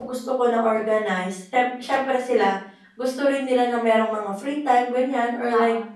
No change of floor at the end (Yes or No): Yes